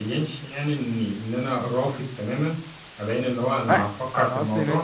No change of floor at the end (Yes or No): No